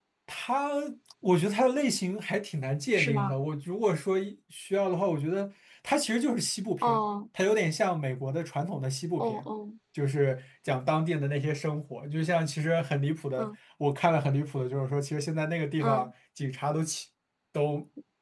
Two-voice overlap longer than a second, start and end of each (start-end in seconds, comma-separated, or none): none